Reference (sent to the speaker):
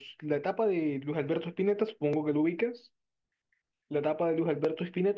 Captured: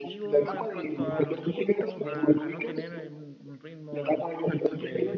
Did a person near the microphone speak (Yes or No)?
Yes